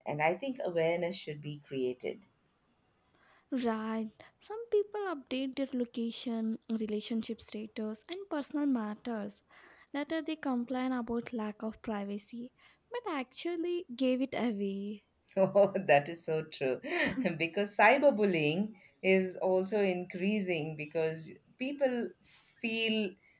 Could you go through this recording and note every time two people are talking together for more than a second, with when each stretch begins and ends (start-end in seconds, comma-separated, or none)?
none